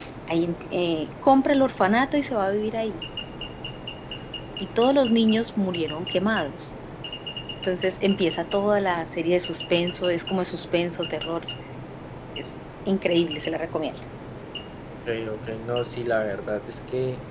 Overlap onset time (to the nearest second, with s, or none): none